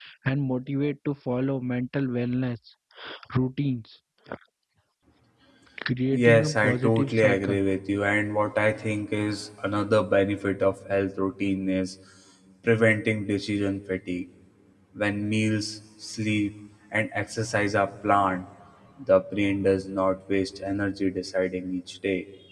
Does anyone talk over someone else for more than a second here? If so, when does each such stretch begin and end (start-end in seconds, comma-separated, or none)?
6.1-7.6